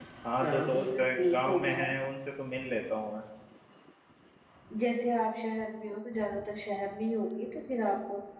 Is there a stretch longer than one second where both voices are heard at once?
Yes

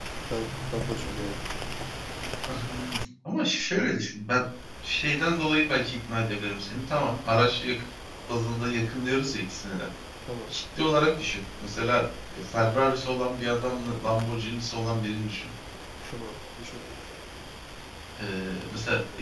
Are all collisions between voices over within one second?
Yes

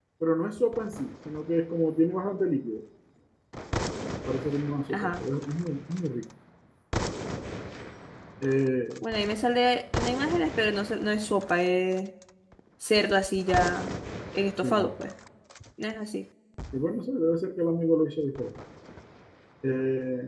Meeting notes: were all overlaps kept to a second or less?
Yes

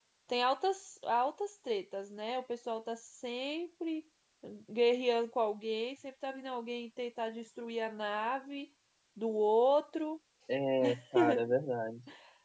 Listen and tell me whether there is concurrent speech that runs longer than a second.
No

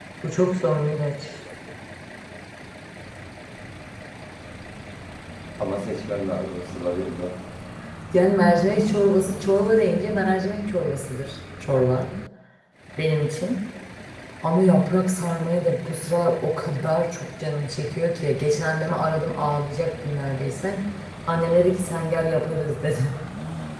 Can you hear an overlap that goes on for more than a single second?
No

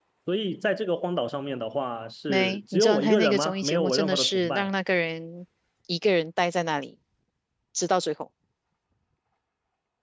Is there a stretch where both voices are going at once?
Yes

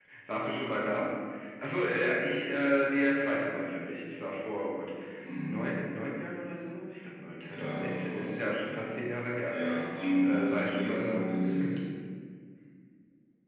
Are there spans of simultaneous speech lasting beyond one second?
Yes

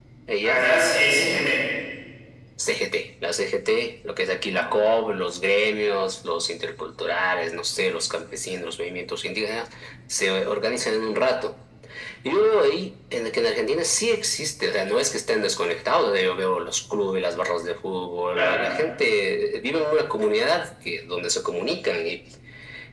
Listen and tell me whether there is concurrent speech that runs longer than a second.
No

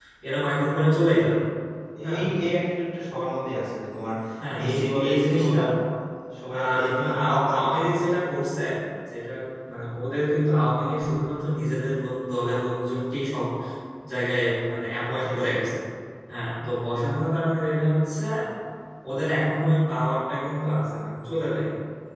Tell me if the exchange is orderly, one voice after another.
No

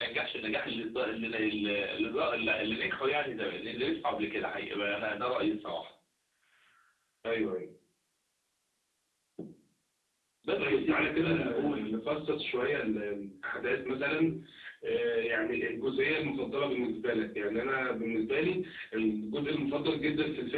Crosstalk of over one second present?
Yes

